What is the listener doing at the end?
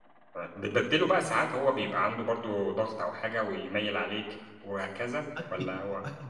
taking over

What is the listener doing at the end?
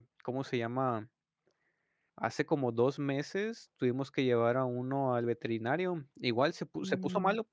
listening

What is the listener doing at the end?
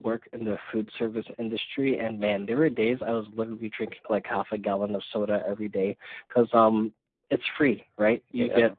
listening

